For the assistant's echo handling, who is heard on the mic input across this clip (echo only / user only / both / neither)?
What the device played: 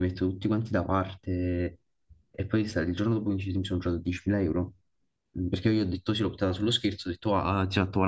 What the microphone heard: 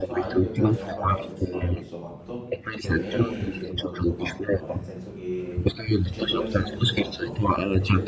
both